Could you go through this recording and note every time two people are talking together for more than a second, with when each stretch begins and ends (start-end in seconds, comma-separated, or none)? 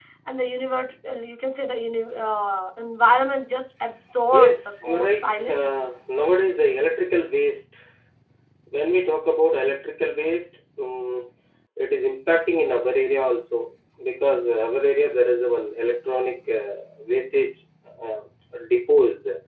4.3-5.8